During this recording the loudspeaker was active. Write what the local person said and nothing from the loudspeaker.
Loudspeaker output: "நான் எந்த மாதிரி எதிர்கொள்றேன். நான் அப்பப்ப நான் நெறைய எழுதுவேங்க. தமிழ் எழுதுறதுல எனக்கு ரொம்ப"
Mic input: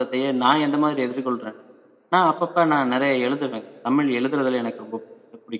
none

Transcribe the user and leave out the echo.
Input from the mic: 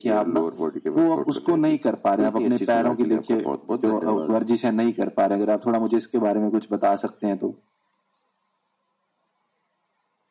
none

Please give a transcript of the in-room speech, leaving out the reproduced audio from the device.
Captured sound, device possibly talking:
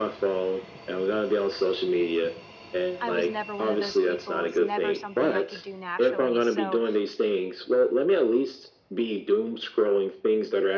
I was never one of those people, it was never something I could do naturally, so

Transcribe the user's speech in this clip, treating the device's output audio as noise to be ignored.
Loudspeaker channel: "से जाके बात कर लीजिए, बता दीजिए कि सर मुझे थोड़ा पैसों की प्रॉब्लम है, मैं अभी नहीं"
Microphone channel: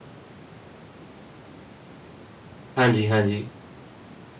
हाँ जी, हाँ जी।

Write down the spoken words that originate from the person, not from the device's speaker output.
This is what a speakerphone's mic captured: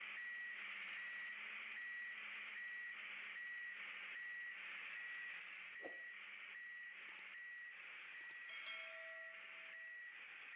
none

